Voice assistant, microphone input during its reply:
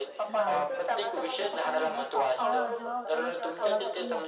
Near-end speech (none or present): present